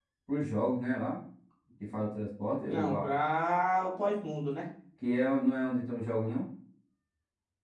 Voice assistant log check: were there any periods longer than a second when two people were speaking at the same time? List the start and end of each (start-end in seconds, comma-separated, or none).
none